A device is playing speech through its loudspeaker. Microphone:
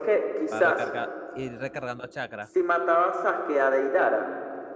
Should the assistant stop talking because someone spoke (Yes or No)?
Yes